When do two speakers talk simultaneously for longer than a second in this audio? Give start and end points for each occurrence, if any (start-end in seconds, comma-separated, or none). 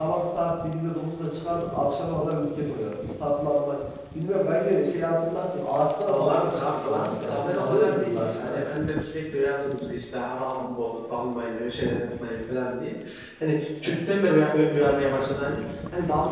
6.1-8.6